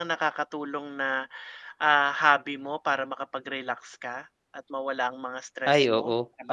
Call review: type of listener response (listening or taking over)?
taking over